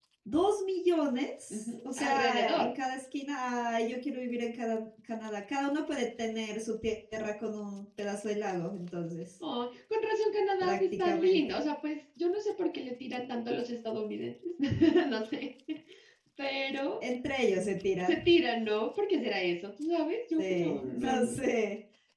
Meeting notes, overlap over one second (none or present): present